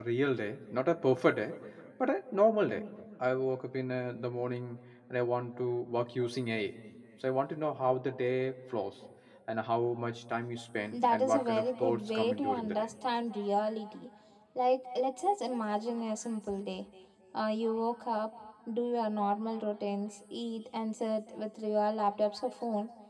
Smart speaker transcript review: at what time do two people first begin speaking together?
10.9 s

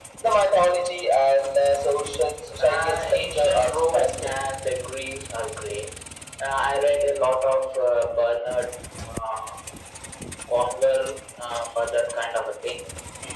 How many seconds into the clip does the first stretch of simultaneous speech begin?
2.6 s

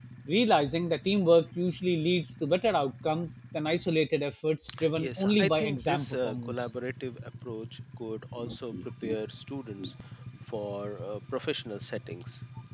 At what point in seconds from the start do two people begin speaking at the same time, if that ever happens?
5.0 s

